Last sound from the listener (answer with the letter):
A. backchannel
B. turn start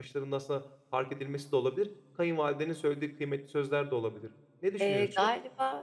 B